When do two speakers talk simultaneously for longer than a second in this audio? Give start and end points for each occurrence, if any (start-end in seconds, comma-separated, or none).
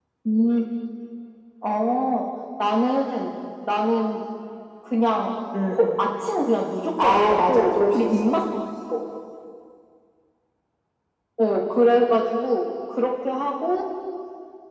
7.0-8.3